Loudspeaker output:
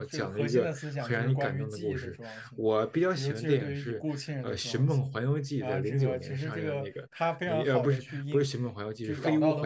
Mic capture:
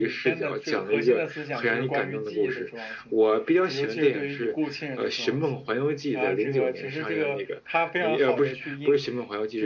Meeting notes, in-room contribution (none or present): none